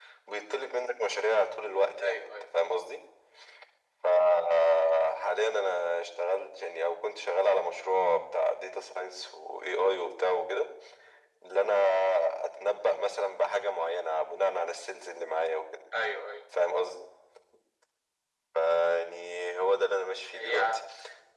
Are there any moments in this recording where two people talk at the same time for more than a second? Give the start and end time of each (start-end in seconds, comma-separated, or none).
none